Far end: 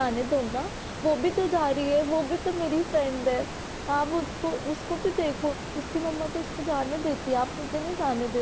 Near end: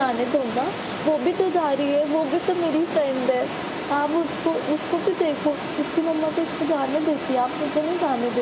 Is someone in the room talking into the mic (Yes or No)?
No